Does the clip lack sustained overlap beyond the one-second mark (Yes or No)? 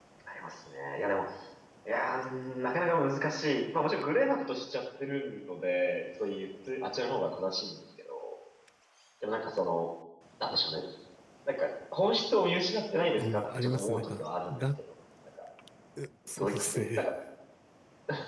No